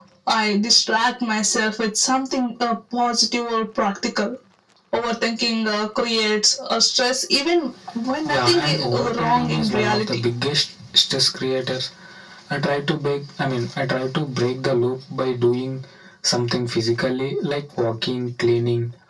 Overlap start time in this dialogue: 8.2 s

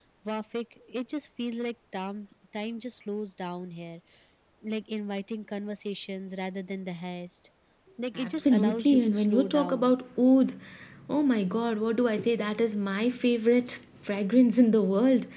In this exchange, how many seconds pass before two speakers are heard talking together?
8.2 s

